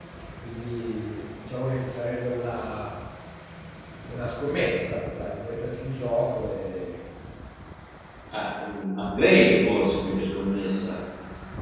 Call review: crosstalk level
none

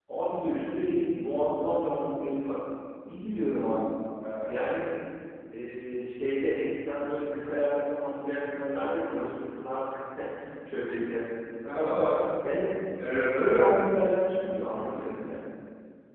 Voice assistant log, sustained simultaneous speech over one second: none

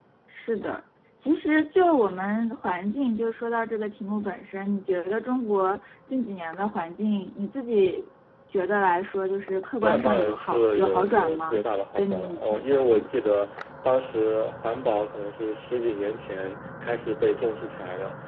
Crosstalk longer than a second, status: present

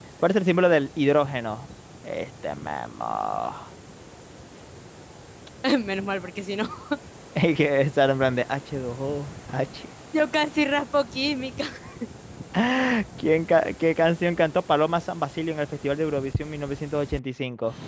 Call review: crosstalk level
none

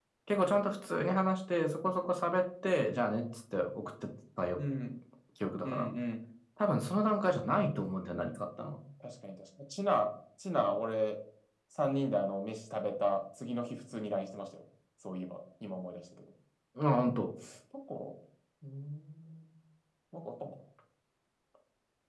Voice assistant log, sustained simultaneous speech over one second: none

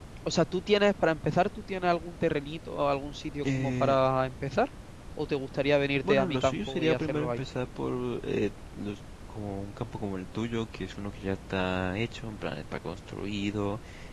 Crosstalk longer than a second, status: present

